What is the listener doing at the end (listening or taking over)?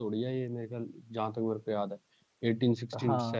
taking over